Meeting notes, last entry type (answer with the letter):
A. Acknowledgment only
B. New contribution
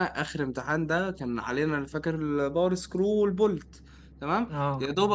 A